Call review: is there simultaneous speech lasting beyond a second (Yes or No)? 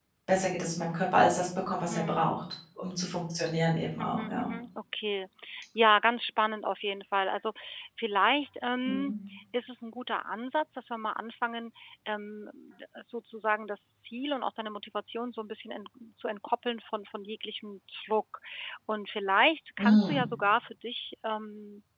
No